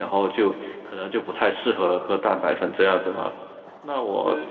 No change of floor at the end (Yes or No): Yes